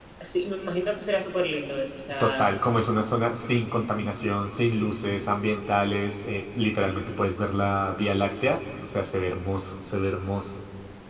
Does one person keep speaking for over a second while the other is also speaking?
No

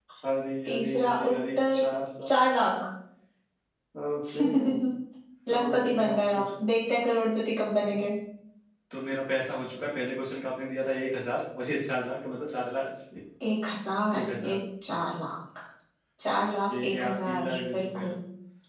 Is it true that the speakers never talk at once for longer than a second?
No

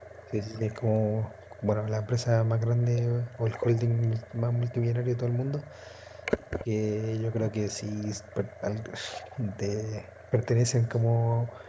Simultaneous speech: No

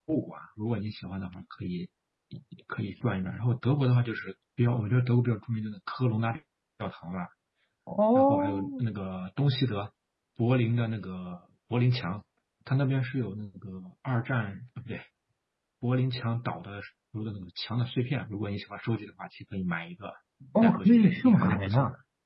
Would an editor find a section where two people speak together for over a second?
Yes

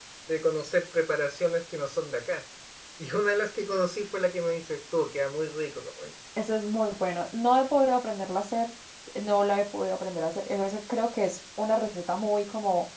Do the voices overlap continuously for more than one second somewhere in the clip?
No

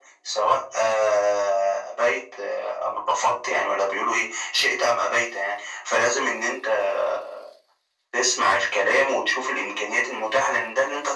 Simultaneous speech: No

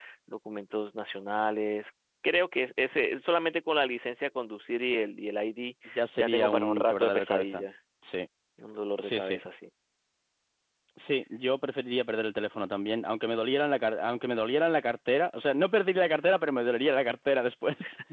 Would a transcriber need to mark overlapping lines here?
Yes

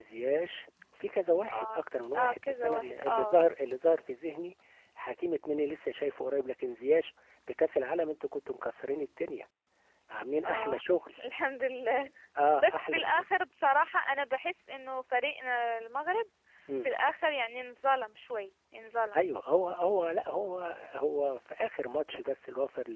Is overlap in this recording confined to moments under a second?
No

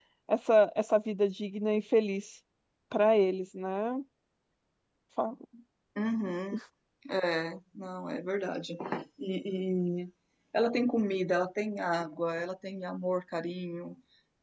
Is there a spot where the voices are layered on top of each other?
No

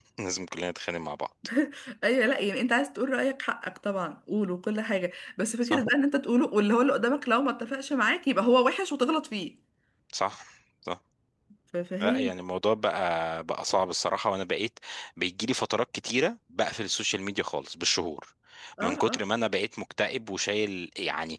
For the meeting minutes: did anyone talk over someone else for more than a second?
No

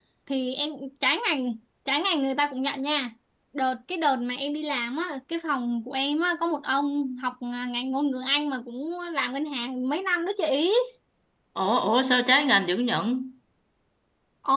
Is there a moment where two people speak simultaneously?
No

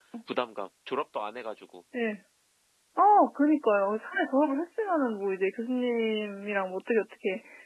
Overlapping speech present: No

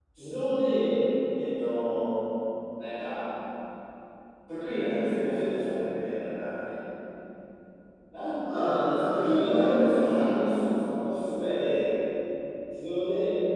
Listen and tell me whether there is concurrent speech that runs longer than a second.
Yes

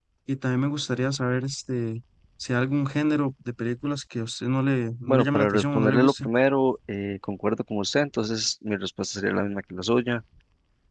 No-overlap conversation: No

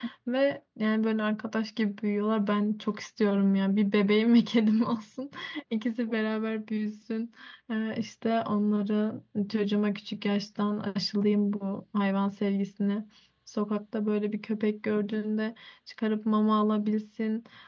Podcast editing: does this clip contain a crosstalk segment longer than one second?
No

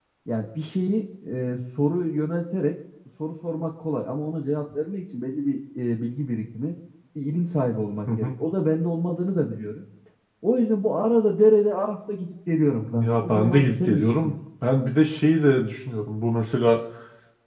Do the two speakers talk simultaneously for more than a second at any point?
Yes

